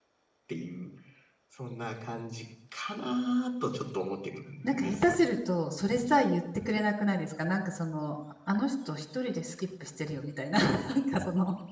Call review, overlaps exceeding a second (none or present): none